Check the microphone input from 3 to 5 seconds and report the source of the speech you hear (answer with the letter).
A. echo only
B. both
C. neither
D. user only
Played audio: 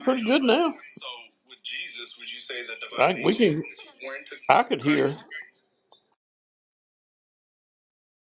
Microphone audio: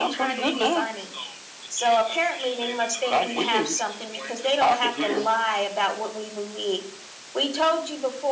B